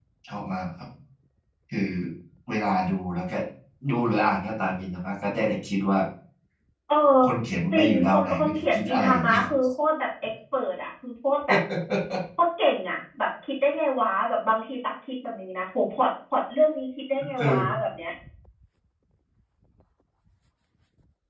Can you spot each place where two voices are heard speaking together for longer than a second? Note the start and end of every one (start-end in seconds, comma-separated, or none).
7.7-9.4